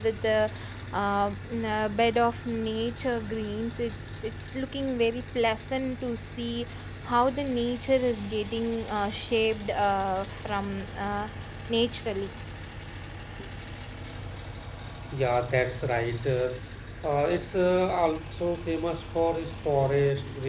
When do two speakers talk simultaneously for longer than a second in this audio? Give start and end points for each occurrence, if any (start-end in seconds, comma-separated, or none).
none